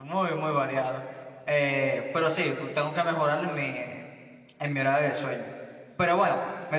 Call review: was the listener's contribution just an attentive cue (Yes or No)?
Yes